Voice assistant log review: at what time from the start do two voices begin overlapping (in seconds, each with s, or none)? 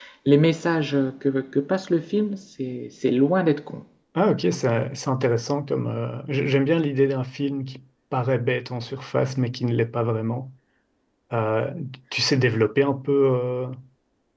none